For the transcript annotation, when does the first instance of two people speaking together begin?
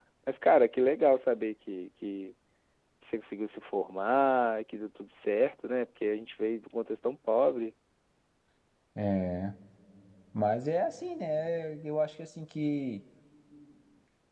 none

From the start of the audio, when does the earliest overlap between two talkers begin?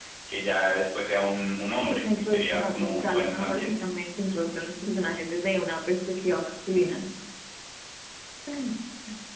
1.8 s

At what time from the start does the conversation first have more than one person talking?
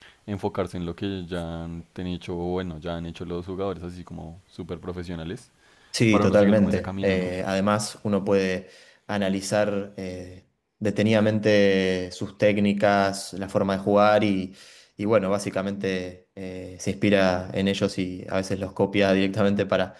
6.1 s

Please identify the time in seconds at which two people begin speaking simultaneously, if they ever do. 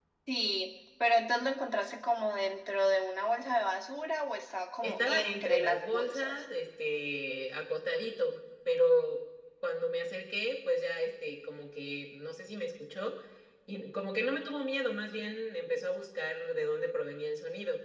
4.8 s

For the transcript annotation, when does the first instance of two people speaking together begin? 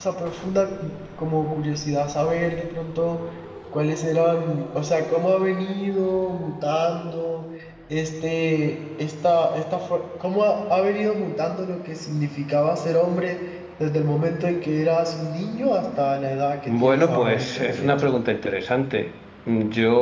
16.7 s

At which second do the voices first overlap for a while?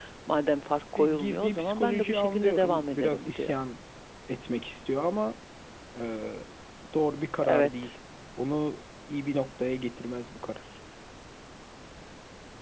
1.0 s

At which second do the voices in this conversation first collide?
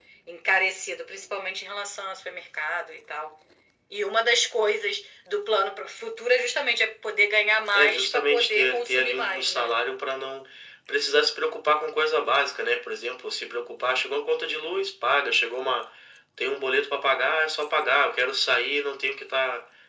7.7 s

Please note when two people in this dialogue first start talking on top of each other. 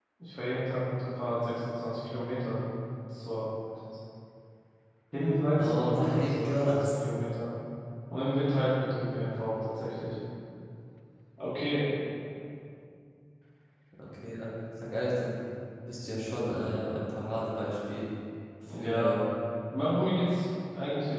5.6 s

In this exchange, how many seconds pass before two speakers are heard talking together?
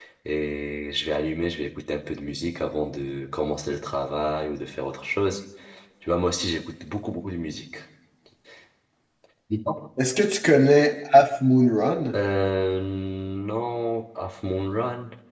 none

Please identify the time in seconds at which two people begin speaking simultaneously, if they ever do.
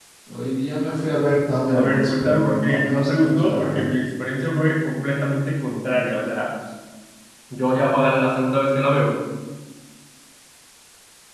1.7 s

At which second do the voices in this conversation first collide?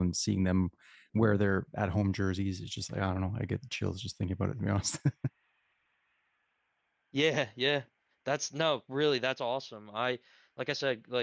none

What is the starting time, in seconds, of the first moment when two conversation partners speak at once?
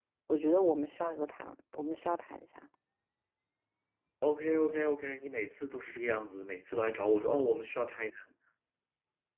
none

